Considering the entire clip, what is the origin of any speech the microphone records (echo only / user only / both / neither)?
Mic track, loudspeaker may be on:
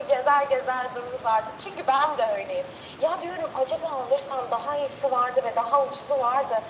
echo only